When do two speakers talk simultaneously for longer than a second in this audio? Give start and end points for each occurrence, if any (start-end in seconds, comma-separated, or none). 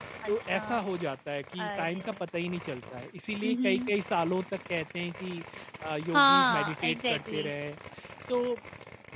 6.1-7.5